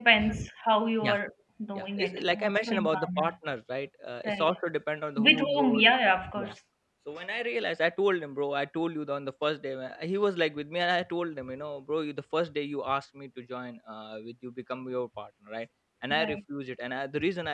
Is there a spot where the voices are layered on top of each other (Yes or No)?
Yes